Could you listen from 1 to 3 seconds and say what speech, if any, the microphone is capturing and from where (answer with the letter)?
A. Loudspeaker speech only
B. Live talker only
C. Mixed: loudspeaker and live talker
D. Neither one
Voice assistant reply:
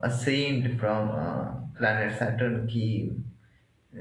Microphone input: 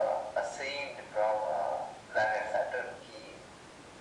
A